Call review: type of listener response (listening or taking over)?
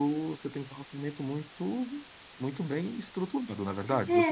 taking over